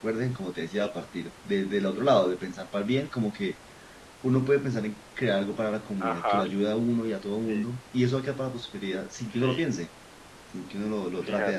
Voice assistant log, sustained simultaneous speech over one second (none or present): none